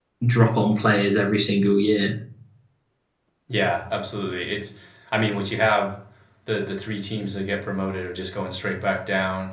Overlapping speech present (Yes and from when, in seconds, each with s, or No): No